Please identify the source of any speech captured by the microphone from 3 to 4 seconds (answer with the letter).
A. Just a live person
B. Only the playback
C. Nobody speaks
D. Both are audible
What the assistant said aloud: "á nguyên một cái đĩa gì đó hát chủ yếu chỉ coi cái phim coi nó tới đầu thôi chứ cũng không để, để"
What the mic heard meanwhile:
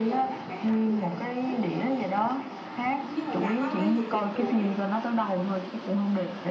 D